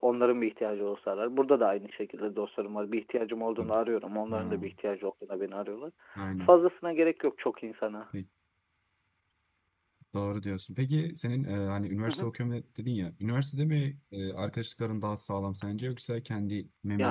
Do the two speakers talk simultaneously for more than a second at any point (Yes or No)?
No